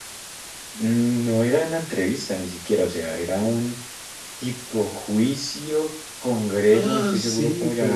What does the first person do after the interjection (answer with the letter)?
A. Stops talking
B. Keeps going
A